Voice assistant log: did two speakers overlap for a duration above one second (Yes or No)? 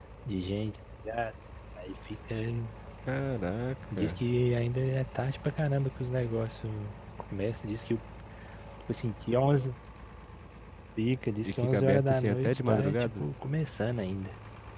Yes